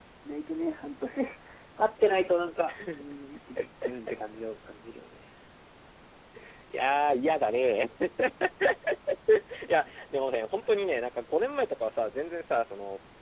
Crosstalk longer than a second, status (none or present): none